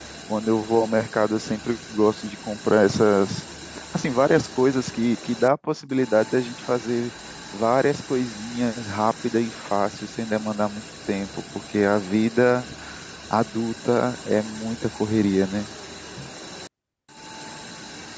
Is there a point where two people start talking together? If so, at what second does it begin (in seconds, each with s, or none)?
none